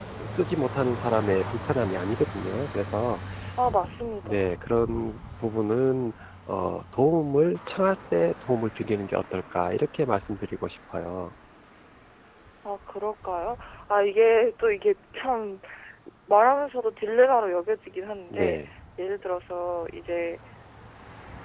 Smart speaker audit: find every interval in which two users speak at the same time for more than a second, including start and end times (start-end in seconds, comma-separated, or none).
none